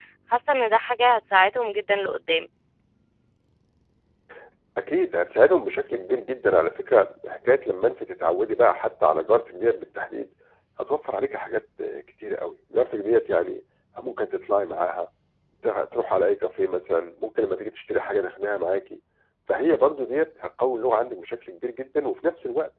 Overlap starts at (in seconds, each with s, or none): none